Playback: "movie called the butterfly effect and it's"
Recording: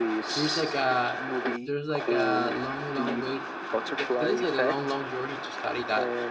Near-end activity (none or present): present